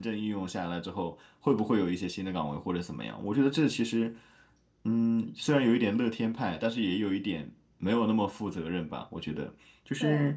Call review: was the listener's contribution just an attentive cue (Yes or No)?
Yes